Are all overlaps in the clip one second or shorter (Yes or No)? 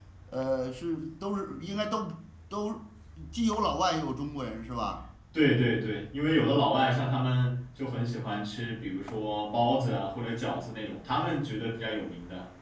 Yes